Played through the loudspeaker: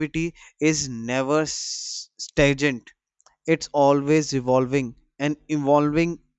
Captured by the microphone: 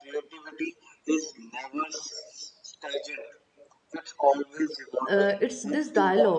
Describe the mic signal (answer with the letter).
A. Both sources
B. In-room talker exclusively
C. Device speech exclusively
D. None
A